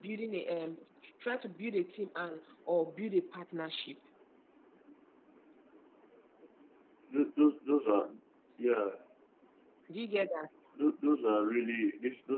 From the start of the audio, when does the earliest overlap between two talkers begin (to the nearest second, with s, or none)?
none